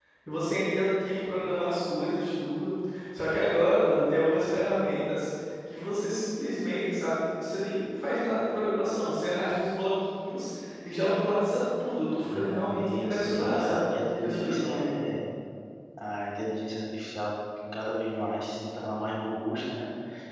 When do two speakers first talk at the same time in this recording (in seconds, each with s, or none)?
12.2 s